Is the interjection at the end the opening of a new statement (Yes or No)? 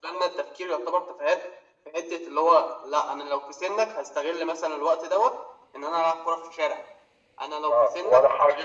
Yes